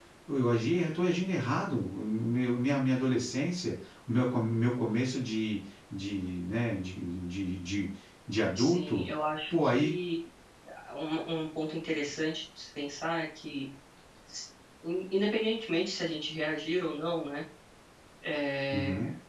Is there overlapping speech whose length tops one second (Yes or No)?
No